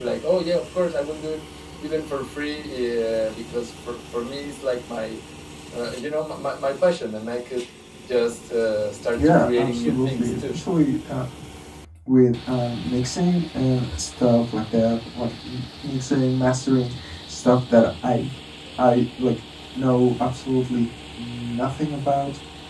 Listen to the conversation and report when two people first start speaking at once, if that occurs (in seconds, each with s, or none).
9.2 s